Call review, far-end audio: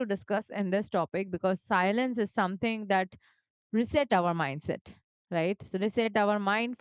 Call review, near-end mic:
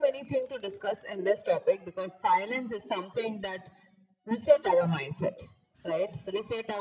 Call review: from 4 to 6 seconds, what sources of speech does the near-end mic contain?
echo only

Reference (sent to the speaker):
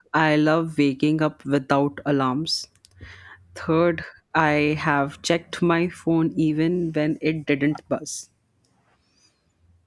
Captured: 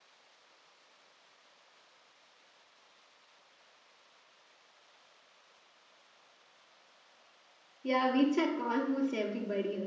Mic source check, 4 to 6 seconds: neither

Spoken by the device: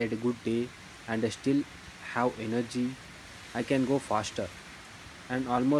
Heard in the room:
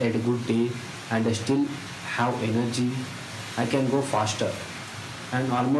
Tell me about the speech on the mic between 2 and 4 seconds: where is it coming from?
echo only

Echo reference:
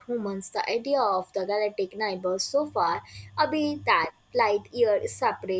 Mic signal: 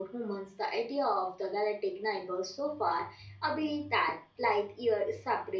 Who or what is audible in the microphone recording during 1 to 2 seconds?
echo only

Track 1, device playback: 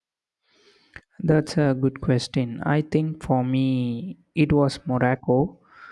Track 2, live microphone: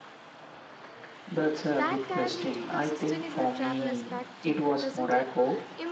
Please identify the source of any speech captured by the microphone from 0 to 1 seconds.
neither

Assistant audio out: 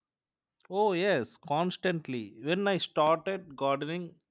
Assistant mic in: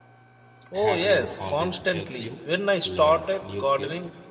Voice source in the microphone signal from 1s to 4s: both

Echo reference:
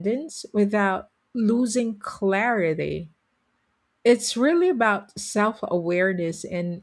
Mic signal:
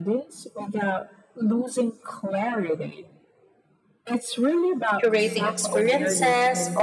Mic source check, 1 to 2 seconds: echo only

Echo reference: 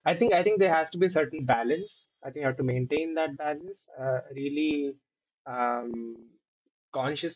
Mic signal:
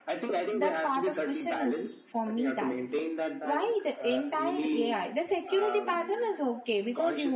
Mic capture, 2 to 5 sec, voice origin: both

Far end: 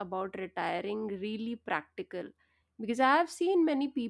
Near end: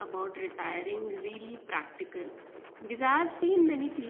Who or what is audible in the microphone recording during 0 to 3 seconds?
echo only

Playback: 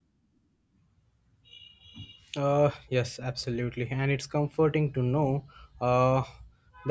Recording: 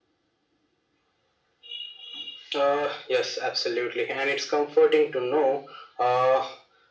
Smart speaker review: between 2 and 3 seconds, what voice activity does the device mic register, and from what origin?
echo only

